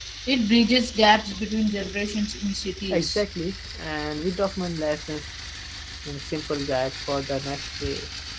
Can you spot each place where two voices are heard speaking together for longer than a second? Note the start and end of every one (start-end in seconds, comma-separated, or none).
none